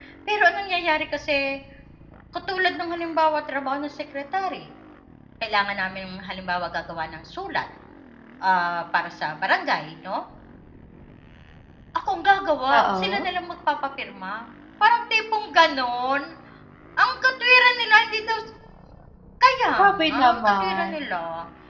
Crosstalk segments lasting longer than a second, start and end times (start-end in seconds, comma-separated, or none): 19.8-21.0